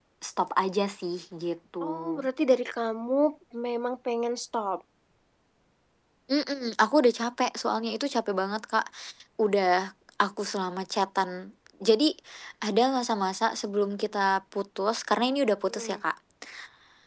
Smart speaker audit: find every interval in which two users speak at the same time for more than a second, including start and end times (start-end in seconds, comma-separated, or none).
none